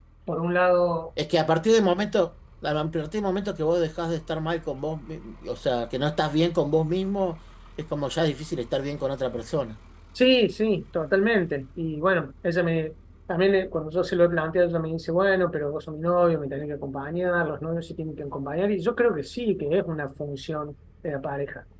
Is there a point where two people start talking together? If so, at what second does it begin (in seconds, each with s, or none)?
none